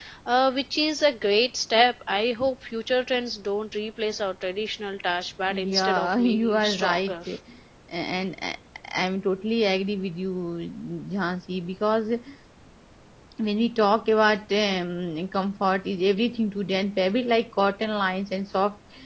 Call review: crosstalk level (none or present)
present